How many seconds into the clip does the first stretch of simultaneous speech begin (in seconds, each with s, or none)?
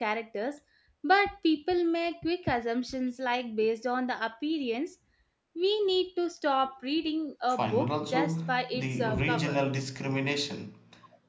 7.5 s